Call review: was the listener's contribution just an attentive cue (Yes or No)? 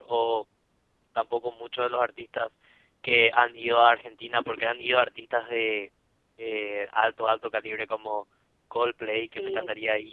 Yes